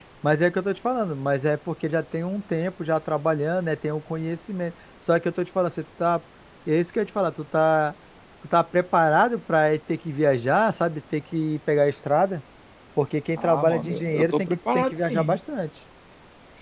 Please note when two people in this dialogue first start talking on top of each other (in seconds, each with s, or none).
13.4 s